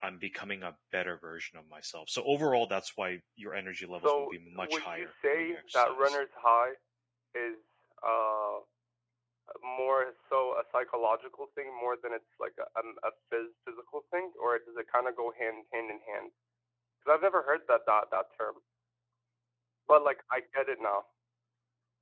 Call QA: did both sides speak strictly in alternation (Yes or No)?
No